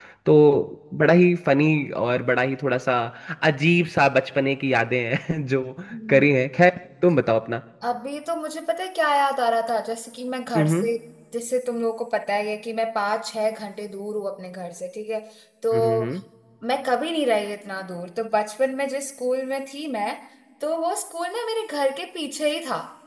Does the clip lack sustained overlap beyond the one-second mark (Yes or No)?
Yes